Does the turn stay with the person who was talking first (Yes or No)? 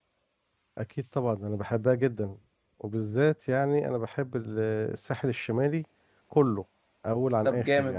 No